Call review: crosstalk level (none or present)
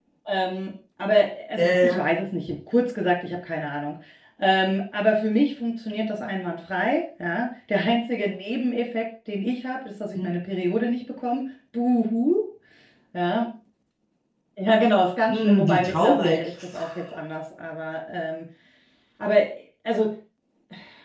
present